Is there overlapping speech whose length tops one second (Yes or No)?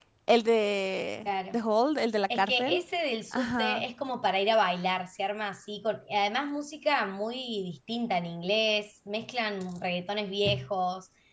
No